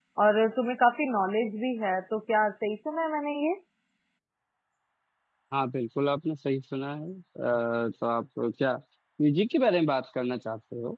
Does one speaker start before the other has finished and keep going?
No

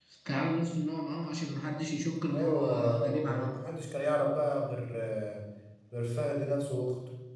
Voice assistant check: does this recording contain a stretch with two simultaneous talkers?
Yes, from 2.3 s

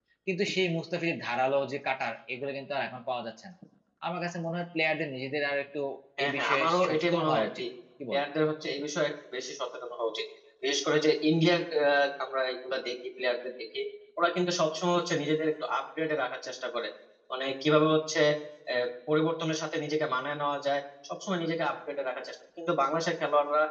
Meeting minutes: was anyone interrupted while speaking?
Yes, from 6.2 s

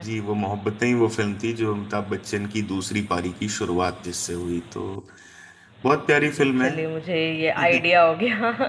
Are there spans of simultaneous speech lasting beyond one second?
No

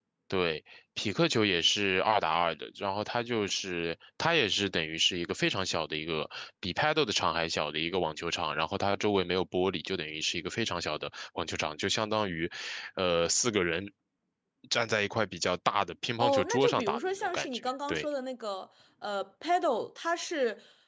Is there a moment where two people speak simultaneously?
Yes, from 16.2 s

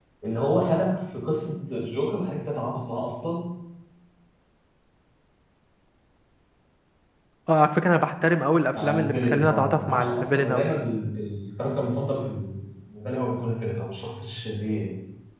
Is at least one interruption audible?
Yes, from 8.7 s

